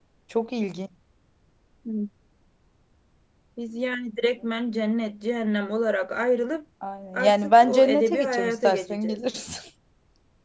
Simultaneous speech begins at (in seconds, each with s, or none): 7.1 s